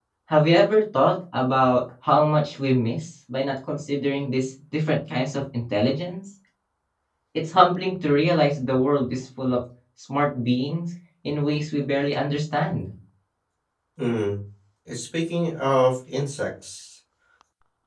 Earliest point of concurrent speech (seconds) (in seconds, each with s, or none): none